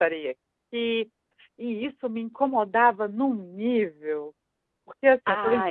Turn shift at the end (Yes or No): No